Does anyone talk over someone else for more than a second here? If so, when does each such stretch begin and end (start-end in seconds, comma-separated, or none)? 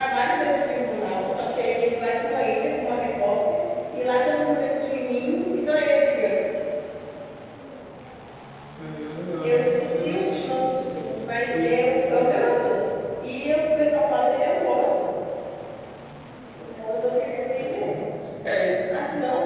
9.4-12.5